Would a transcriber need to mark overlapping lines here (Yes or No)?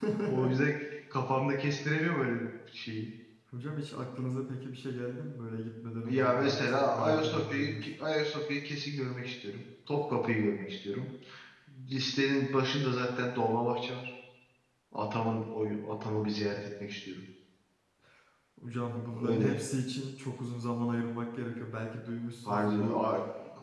Yes